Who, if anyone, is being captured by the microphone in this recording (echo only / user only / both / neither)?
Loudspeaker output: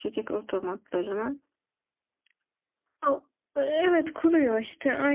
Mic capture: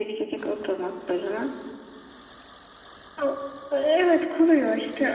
echo only